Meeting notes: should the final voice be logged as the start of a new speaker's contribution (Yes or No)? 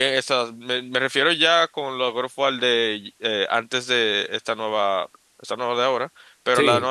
No